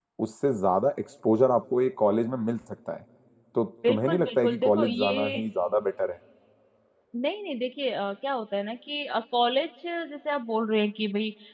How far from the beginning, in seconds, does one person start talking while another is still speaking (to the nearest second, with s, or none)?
4 s